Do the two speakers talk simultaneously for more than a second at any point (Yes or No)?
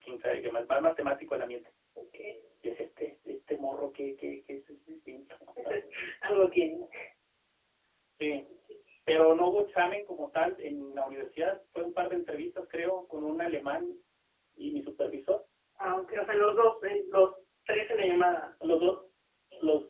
No